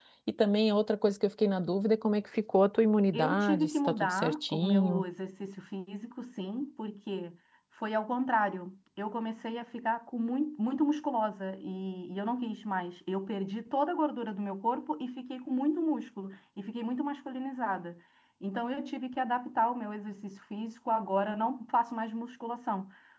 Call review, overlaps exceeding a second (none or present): present